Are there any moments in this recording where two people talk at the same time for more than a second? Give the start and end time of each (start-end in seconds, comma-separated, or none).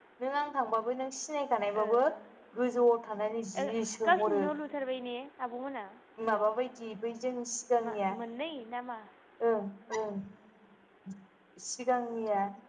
none